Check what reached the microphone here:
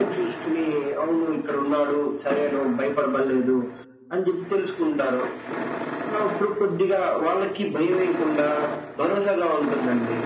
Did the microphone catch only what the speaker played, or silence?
Yes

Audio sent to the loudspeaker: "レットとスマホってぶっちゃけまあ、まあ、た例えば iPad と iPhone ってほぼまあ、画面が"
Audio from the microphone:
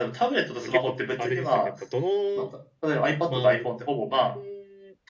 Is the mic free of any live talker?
No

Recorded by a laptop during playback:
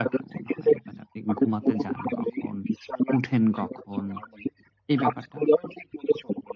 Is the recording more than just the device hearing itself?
Yes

